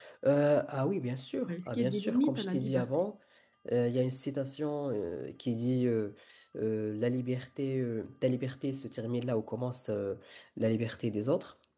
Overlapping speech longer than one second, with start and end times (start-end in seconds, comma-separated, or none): 1.5-3.0